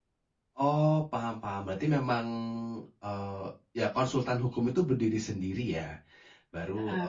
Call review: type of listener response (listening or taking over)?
listening